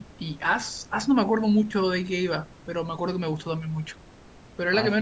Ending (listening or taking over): taking over